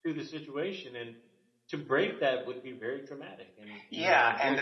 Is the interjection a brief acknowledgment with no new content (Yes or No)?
No